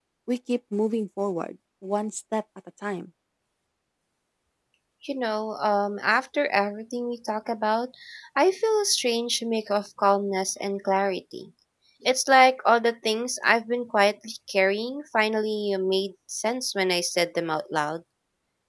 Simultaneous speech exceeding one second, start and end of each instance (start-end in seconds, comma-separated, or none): none